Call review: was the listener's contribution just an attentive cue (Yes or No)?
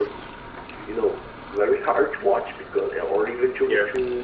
Yes